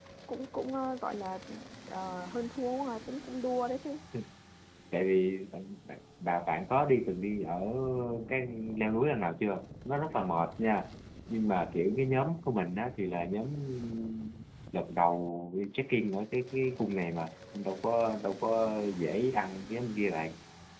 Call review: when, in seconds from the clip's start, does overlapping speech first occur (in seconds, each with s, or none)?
none